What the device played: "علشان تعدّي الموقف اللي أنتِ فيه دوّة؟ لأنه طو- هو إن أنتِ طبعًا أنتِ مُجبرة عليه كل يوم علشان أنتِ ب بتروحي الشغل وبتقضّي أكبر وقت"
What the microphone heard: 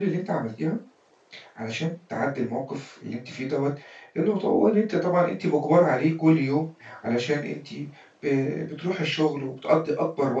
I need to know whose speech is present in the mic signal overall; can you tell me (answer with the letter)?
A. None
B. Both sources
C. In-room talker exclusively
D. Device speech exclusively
D